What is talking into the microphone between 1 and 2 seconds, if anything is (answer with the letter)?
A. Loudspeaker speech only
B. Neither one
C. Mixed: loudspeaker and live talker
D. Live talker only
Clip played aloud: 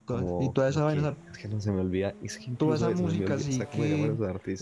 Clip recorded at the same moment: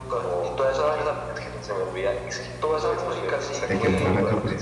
A